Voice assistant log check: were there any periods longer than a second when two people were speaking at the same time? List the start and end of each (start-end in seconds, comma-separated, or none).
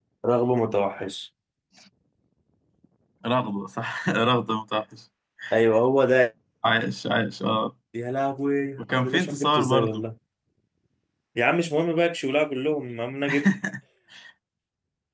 8.8-10.0